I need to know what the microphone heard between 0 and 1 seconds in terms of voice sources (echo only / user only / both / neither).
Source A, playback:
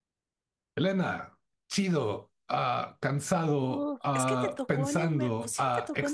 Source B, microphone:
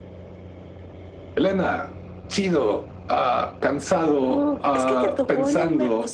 neither